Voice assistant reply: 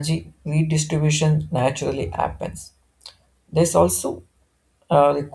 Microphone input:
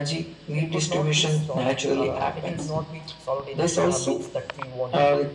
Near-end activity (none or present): present